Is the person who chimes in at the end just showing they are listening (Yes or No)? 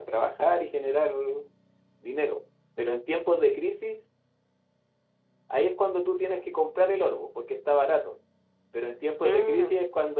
Yes